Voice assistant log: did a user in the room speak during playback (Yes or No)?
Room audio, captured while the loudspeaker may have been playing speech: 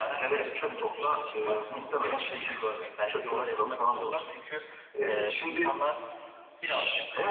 No